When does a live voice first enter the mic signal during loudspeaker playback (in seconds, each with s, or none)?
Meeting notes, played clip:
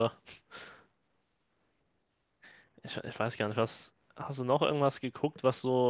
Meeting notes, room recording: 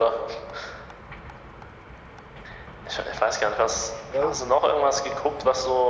4.0 s